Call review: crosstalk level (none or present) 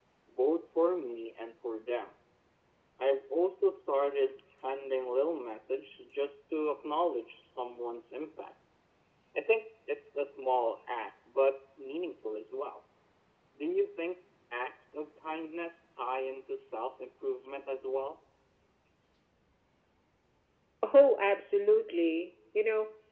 none